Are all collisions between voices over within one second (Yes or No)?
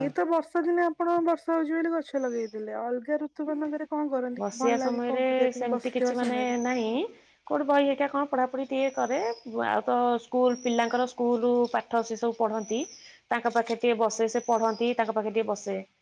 No